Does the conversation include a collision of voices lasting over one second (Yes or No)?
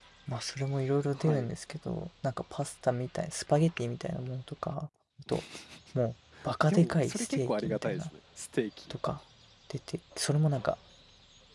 Yes